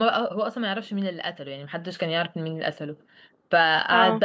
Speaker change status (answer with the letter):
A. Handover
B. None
B